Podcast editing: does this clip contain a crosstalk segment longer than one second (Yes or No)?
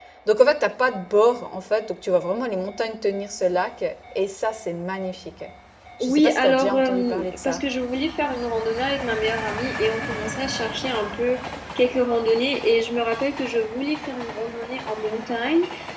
Yes